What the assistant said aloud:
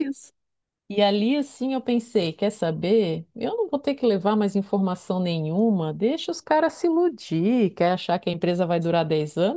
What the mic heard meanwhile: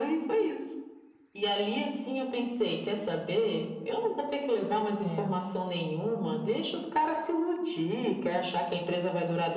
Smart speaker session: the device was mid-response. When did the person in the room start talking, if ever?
5 s

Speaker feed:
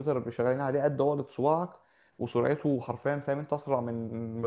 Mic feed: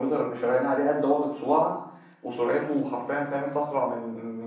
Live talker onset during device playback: none

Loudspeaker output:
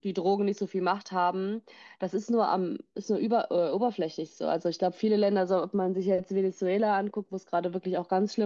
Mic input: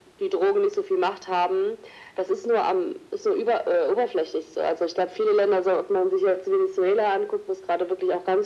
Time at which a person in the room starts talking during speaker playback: none

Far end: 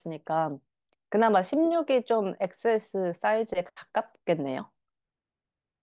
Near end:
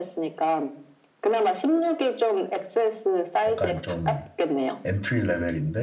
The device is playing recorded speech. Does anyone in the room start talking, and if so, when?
3 s

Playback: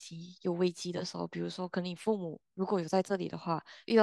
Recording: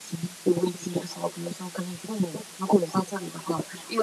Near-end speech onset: none

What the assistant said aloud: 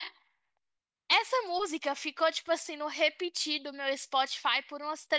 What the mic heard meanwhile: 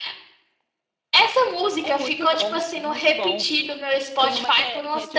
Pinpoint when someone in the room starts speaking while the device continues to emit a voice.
2 s

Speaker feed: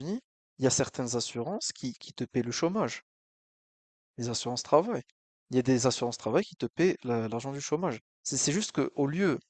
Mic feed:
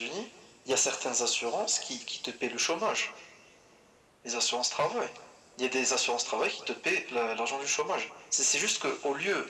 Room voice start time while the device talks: none

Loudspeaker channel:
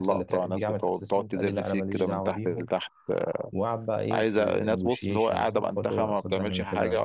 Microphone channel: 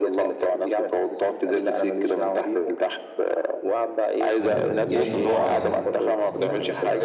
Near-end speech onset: 4 s

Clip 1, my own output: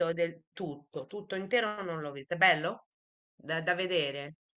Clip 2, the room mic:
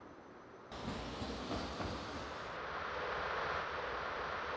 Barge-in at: none

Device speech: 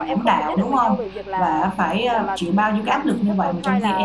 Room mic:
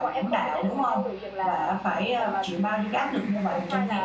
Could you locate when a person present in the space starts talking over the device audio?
none

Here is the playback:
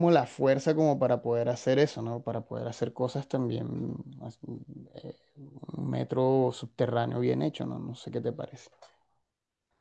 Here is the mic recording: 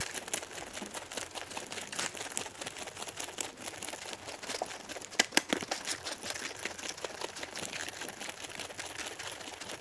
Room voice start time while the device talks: none

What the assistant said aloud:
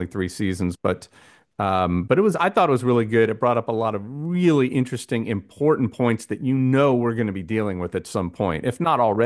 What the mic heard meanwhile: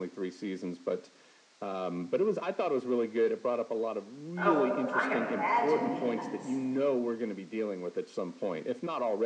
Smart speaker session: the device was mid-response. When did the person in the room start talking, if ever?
4 s

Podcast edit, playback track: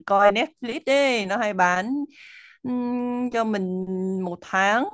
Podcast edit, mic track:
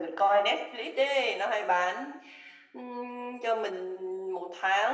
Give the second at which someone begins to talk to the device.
none

